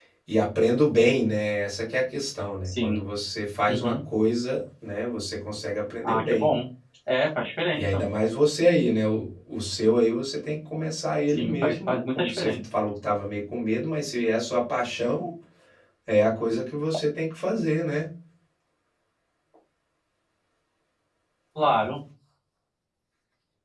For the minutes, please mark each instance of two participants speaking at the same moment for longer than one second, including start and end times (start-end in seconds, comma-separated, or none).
11.3-12.5